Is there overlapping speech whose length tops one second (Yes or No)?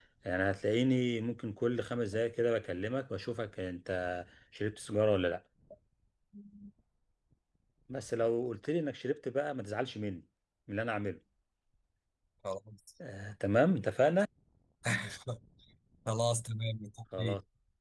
No